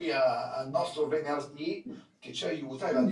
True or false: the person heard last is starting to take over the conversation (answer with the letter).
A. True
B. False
B